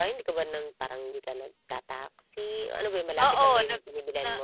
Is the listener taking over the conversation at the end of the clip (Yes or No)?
Yes